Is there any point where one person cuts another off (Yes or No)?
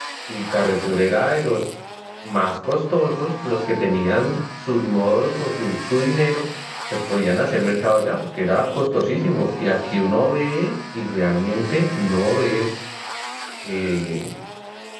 No